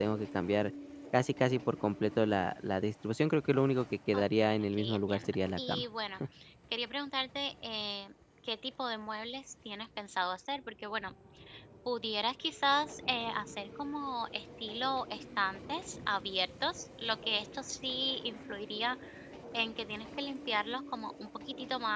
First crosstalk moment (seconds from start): 4.1 s

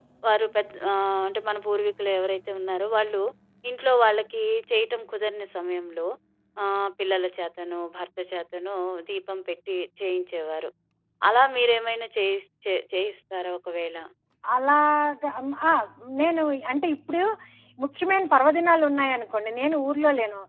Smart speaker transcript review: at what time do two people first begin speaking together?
none

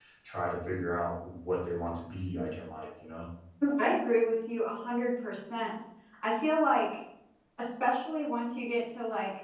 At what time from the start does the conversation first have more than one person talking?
none

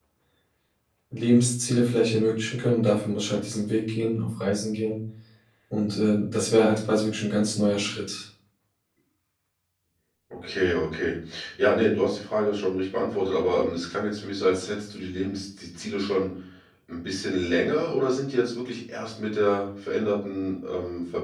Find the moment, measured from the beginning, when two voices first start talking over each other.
none

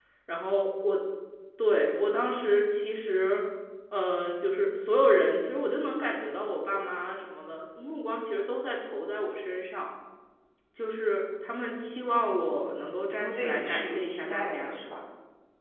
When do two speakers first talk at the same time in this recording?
12.5 s

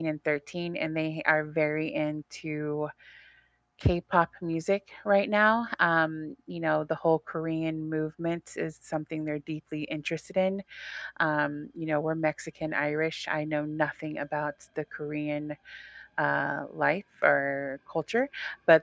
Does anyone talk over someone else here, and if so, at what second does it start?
none

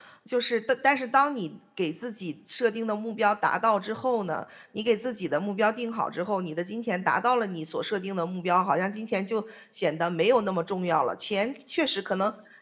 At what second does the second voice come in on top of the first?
none

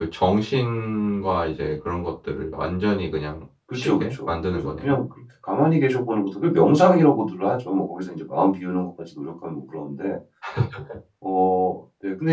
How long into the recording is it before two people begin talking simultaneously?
3.7 s

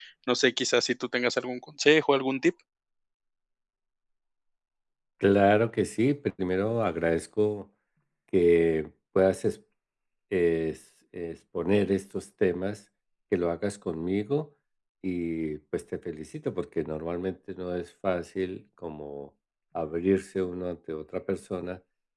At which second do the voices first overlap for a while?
none

